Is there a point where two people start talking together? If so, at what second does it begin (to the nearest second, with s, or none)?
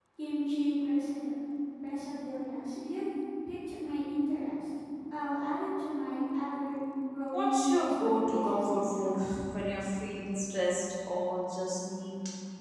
7 s